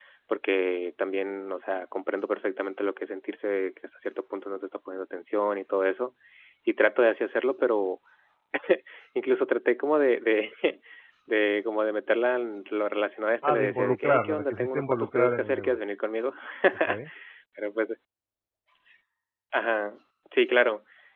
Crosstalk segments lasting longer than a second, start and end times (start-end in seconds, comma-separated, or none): 13.4-15.8